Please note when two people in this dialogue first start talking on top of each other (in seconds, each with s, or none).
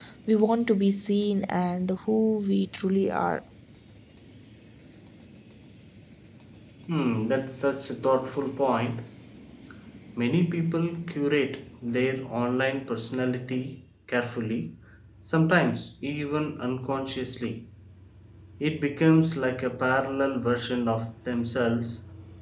none